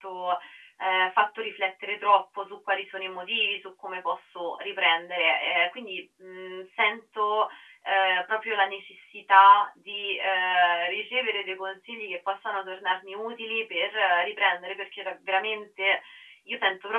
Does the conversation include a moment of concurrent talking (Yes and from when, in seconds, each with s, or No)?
No